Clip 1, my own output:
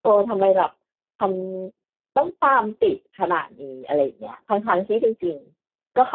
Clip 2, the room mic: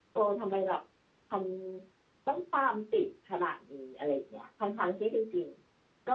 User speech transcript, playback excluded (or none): none